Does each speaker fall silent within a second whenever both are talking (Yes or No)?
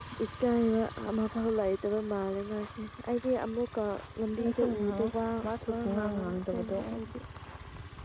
No